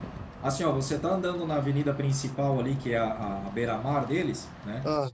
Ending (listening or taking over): listening